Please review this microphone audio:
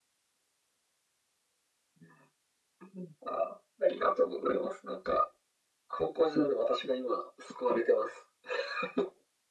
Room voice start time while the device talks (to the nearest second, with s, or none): none